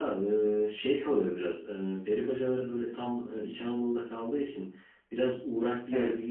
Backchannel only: Yes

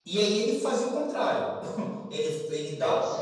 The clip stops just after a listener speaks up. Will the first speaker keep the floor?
Yes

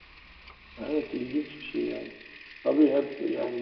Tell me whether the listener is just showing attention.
Yes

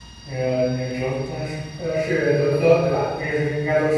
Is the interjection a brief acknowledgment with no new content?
Yes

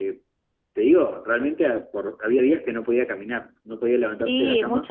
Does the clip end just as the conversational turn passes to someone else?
Yes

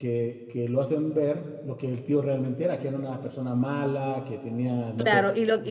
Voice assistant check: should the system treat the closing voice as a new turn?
Yes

